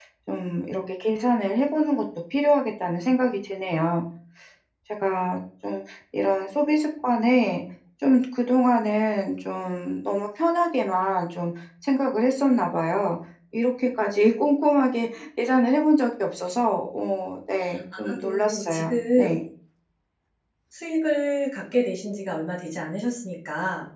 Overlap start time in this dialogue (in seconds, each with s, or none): 17.9 s